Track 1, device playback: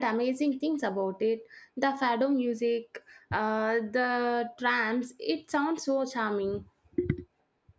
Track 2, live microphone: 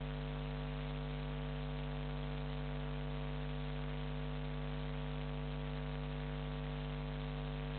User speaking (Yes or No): No